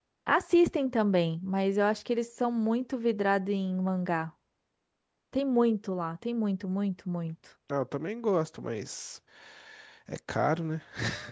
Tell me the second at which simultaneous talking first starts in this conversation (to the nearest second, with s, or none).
none